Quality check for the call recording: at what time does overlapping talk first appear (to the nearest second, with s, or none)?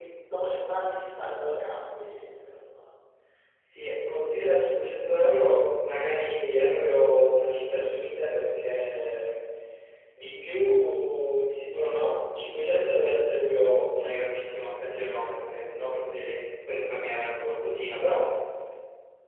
none